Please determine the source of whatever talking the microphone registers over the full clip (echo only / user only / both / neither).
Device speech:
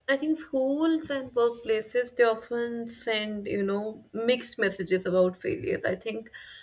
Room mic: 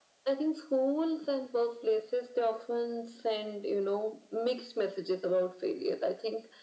echo only